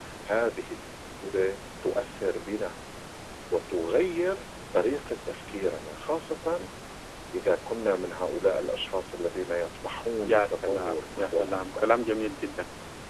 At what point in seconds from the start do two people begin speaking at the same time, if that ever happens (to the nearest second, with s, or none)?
10 s